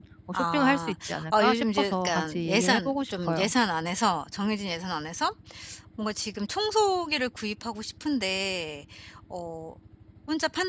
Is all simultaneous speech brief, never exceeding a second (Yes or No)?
No